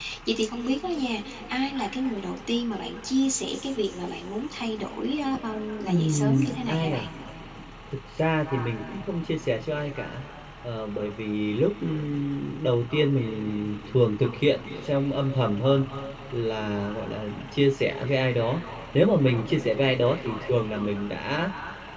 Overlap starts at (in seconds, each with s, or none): 5.8 s